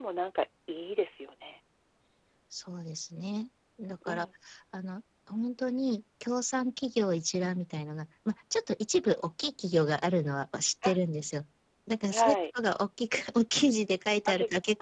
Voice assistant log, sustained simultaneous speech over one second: none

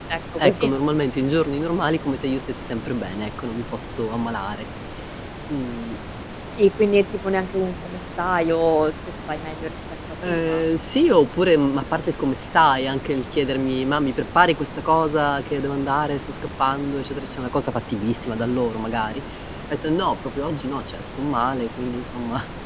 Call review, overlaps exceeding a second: none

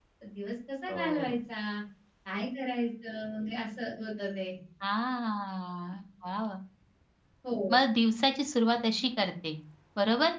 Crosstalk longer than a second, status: none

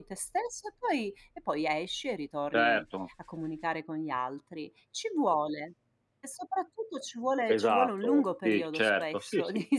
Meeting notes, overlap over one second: present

